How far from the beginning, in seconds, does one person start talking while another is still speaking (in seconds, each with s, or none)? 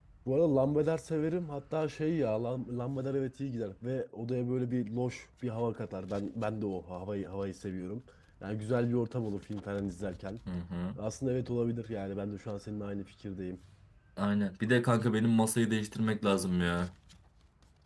none